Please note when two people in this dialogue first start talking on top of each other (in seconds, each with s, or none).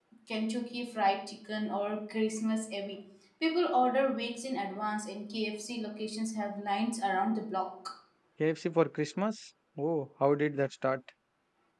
none